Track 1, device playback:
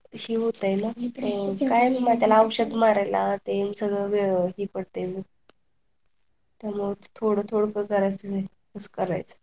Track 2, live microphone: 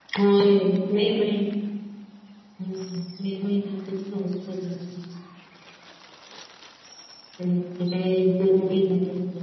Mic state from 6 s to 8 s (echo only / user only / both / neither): user only